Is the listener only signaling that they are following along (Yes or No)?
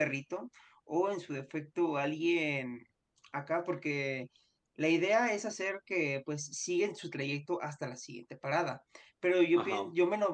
Yes